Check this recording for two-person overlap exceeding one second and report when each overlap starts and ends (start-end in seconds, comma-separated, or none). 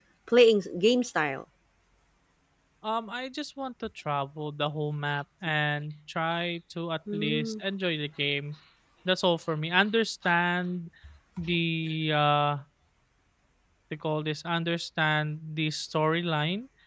none